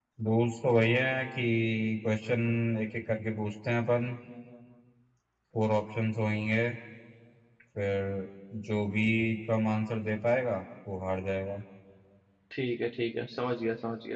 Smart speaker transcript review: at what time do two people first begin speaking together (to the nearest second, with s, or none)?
none